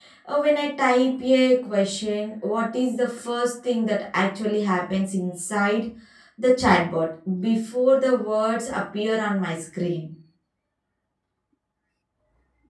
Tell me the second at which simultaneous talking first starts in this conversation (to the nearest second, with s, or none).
none